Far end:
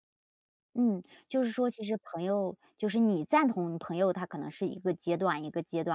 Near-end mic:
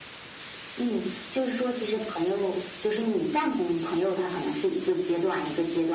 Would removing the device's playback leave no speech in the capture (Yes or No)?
Yes